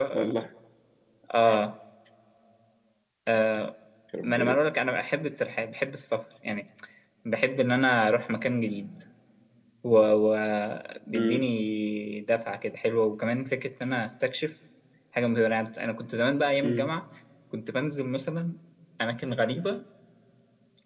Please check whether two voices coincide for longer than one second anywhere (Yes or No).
No